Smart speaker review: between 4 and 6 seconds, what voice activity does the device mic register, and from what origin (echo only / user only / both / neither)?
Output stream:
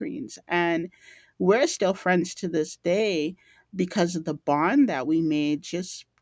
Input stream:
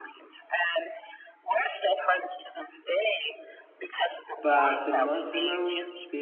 both